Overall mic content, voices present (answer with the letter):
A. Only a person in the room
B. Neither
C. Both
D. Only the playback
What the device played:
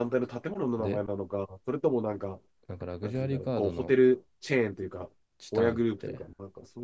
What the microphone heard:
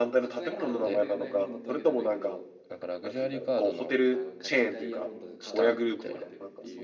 C